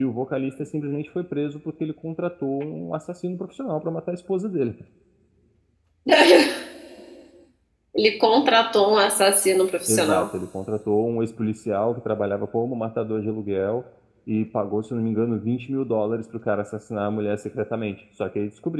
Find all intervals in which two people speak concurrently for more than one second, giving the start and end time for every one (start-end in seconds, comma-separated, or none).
none